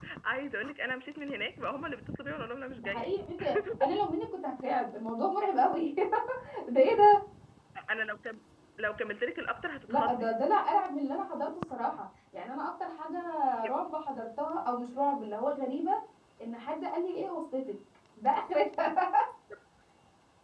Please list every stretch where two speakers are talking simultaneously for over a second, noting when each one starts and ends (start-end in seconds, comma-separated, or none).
none